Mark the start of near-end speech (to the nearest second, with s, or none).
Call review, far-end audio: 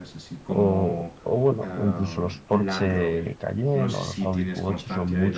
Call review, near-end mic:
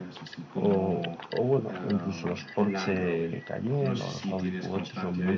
none